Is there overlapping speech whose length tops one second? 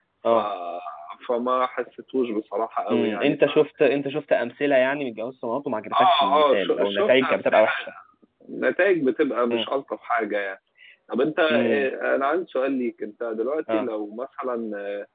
Yes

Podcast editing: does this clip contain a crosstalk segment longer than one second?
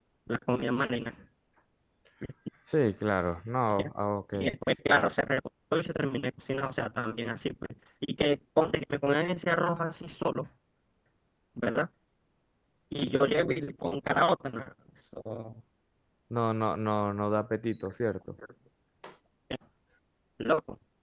No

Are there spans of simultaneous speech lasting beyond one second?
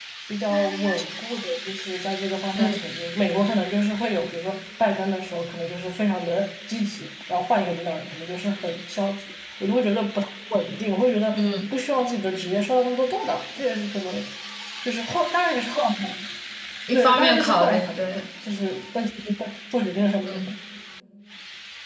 Yes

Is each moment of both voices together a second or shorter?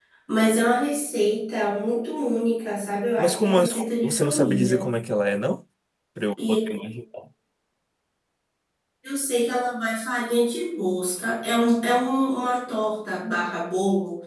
No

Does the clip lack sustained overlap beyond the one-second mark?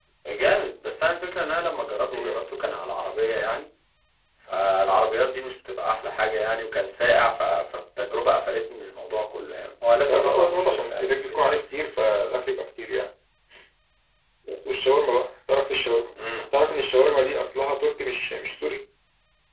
No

